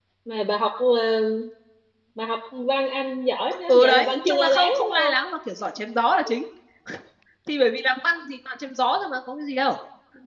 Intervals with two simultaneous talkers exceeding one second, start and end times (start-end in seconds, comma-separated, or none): 3.7-5.1